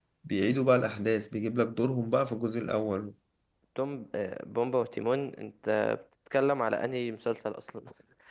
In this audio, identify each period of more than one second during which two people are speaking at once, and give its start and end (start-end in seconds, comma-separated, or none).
none